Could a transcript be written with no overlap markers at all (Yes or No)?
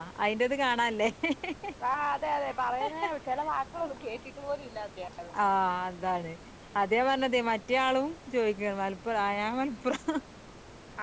Yes